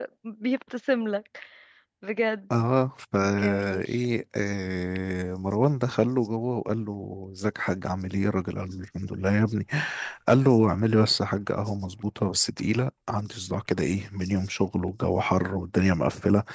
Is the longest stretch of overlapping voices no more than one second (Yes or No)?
Yes